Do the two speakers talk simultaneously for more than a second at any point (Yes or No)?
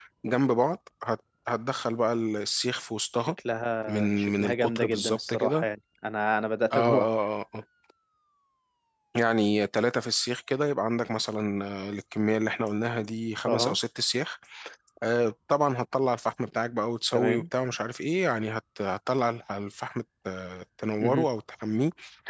Yes